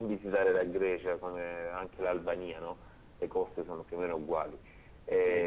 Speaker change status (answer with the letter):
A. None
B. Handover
B